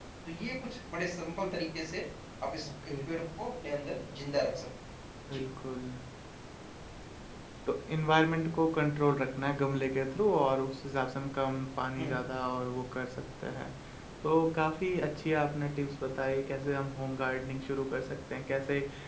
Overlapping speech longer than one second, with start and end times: none

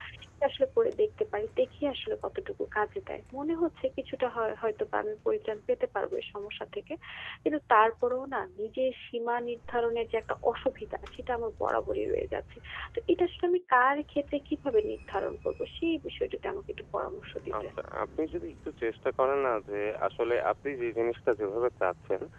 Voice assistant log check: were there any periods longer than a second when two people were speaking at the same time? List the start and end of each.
none

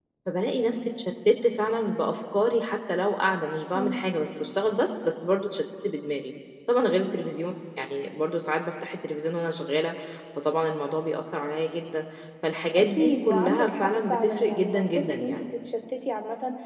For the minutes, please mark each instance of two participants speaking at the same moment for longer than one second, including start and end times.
12.8-15.4

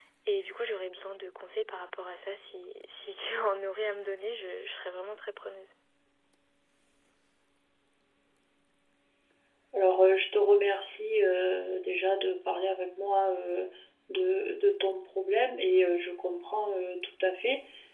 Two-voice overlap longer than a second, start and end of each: none

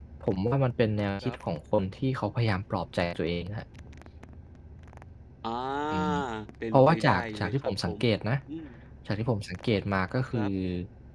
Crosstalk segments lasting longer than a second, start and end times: 6.7-7.9

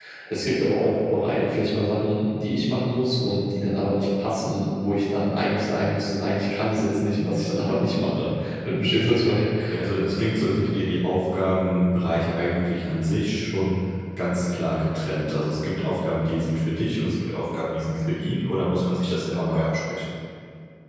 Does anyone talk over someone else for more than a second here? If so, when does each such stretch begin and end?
none

